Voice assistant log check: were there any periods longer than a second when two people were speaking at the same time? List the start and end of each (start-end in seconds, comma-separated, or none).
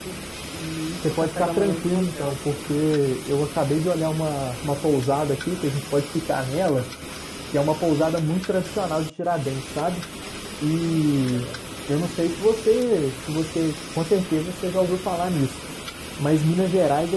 1.1-2.4